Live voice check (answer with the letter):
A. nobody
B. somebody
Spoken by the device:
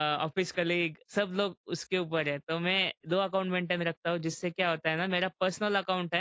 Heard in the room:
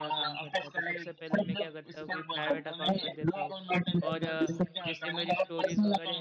B